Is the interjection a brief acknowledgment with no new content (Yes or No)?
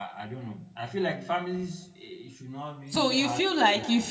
No